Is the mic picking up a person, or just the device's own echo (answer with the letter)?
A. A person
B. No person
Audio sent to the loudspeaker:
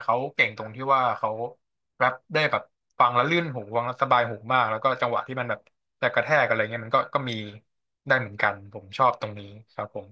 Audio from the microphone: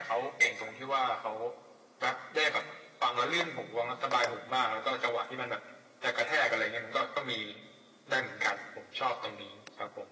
B